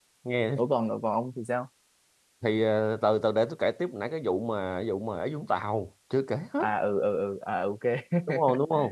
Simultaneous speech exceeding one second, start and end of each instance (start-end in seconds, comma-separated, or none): none